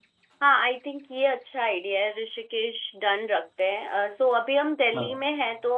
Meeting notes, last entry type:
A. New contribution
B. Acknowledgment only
B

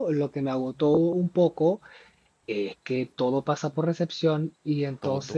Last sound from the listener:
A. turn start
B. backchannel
B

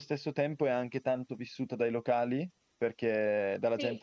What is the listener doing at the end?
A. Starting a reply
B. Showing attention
B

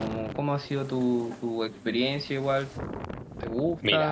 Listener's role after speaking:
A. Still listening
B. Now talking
B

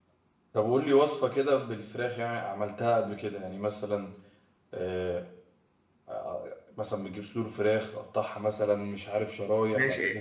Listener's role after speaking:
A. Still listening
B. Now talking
B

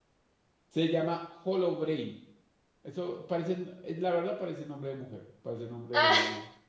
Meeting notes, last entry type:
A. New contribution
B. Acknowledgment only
B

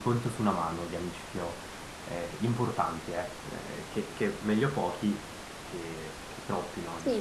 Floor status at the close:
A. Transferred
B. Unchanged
A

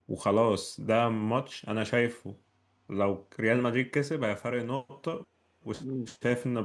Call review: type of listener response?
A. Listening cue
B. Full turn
A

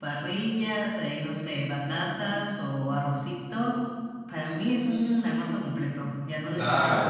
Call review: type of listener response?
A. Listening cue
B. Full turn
B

